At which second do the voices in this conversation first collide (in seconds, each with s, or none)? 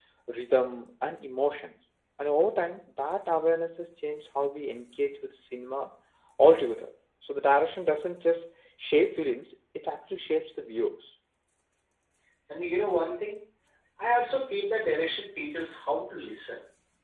none